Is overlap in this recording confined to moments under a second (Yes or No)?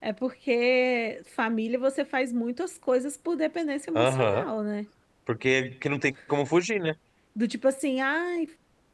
Yes